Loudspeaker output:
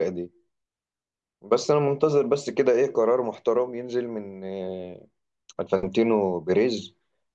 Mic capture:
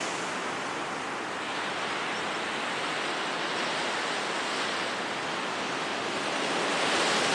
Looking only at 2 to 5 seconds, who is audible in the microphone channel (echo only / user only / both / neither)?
neither